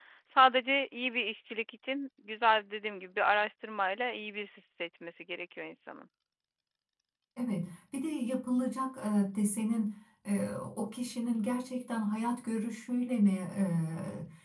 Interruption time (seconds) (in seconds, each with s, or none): none